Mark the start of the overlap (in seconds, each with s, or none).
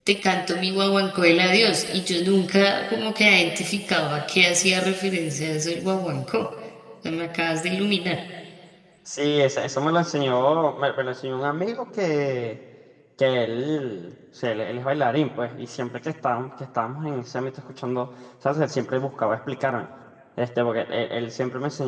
none